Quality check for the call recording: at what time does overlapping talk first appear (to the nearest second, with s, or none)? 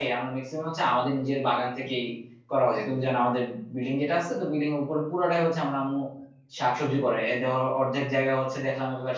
none